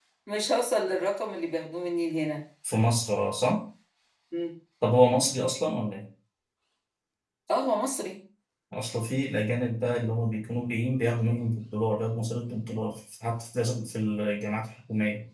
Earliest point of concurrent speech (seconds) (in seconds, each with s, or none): none